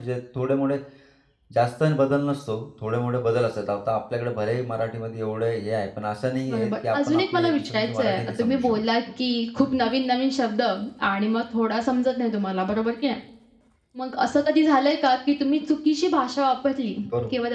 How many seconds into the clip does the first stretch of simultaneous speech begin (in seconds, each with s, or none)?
6.5 s